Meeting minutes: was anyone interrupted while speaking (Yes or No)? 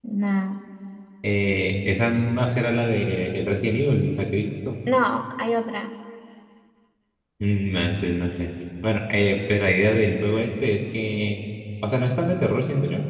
No